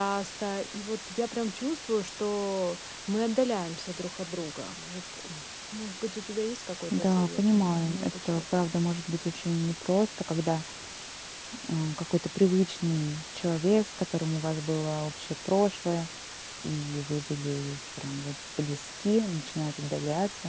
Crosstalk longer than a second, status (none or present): present